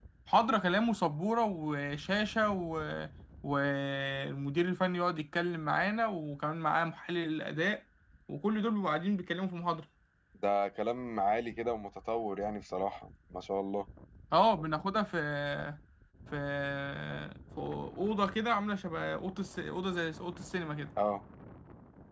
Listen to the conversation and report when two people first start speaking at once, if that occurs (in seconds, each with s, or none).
none